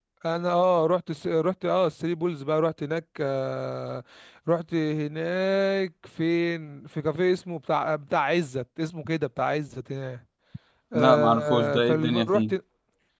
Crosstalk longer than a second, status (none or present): present